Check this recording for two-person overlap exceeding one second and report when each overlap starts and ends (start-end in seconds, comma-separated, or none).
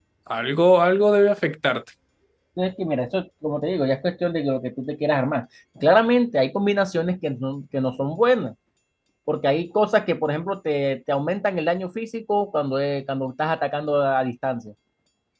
none